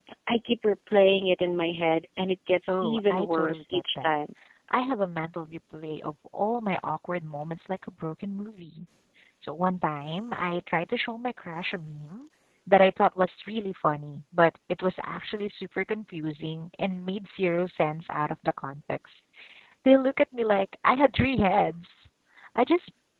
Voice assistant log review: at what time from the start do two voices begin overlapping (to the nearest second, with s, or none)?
3 s